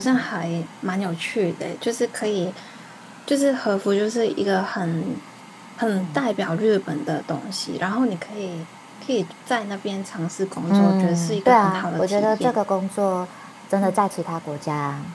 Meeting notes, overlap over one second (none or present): present